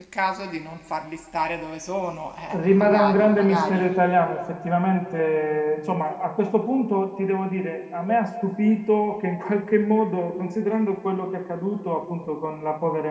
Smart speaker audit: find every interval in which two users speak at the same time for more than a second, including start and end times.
2.5-3.9

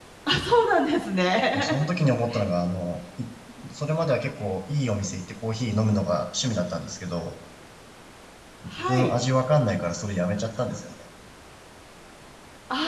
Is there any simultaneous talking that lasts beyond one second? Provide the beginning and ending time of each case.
none

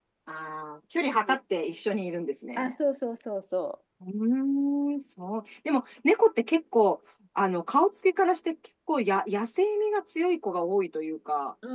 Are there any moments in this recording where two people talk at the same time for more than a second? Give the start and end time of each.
none

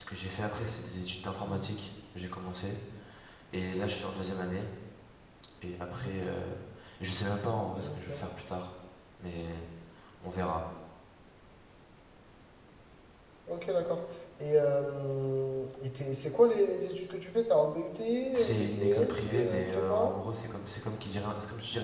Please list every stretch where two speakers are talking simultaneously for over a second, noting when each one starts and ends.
18.3-20.1

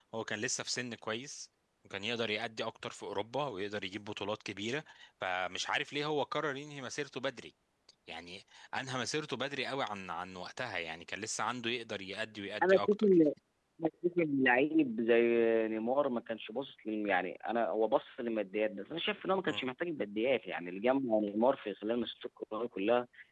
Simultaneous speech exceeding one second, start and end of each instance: none

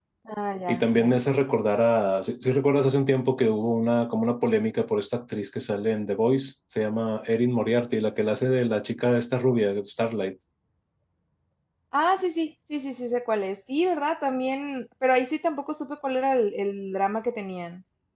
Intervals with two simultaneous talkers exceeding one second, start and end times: none

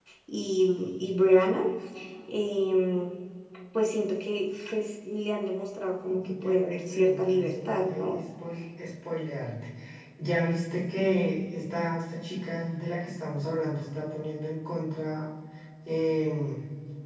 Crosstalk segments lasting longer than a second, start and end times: 6.0-8.2

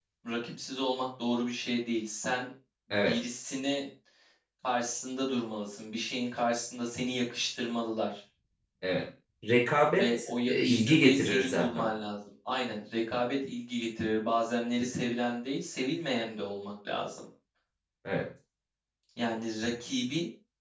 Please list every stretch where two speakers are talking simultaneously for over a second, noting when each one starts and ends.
10.0-11.9

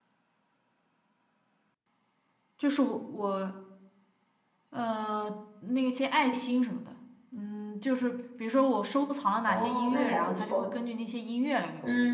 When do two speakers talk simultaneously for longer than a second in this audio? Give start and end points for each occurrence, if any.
9.5-10.7

